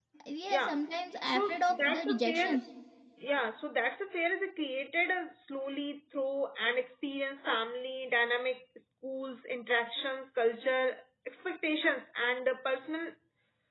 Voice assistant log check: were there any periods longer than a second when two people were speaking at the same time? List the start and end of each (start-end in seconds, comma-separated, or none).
1.4-2.6